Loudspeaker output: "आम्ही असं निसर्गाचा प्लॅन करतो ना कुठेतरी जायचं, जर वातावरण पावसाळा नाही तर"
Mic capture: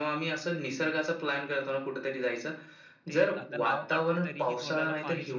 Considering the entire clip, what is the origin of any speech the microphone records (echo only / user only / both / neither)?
both